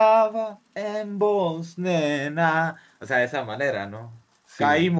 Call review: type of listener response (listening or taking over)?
listening